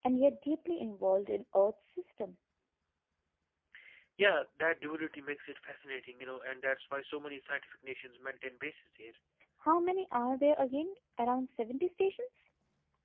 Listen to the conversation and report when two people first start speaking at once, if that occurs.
none

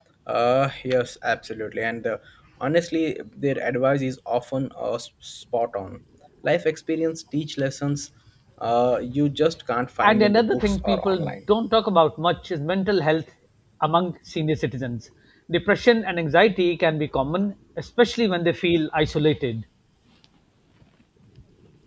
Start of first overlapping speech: 10.0 s

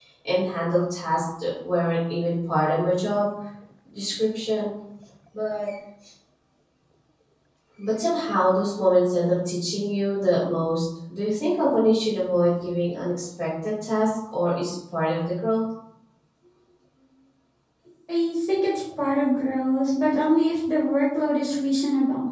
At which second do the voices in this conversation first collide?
none

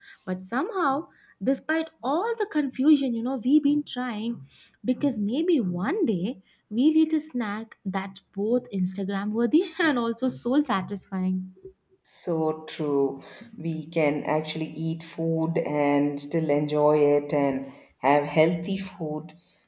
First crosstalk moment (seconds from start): none

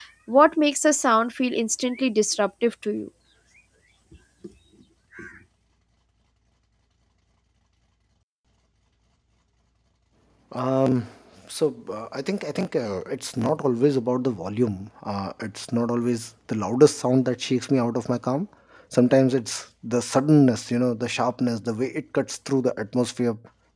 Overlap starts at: none

